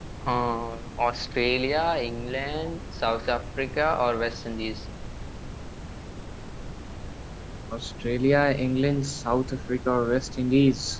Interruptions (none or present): none